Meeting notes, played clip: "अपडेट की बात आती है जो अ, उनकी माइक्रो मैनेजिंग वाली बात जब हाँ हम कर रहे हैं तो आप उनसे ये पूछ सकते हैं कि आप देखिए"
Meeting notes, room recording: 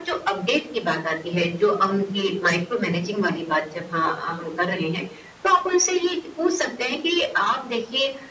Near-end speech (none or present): none